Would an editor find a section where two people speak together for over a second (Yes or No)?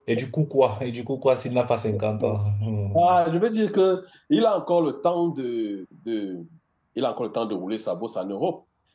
No